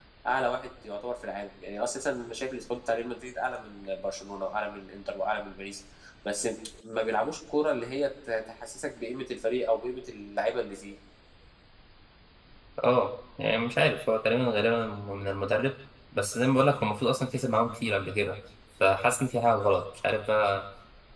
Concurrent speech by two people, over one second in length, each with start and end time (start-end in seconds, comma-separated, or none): none